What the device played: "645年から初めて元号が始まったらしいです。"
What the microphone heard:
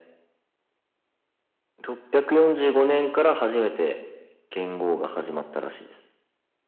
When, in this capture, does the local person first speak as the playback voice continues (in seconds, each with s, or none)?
none